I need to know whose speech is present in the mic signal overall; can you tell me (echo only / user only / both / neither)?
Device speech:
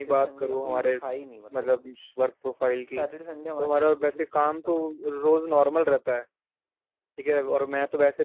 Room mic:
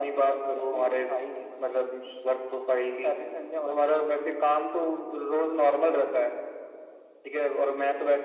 echo only